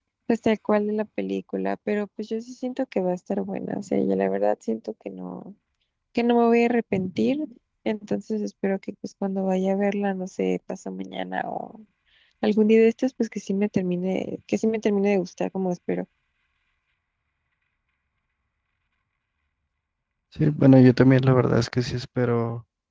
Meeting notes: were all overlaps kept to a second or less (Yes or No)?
Yes